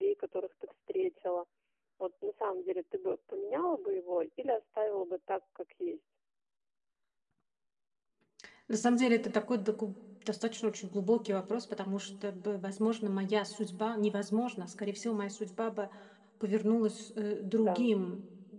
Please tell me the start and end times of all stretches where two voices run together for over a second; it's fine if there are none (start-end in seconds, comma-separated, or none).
none